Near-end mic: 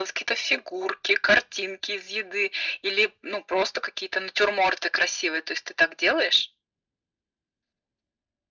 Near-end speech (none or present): none